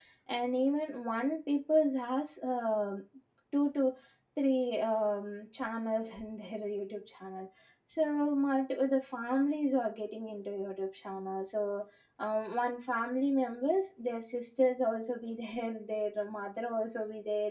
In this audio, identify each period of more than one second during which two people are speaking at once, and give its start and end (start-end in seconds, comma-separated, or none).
none